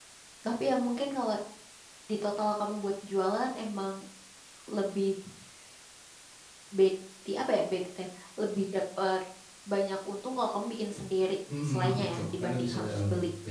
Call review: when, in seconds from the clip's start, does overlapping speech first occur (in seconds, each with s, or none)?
11.5 s